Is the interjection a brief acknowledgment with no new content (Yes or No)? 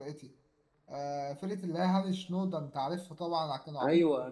Yes